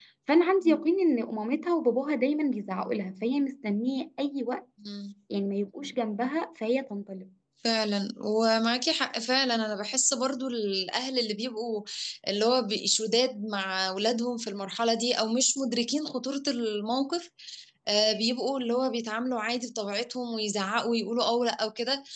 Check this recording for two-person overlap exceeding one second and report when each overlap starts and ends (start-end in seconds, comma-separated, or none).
none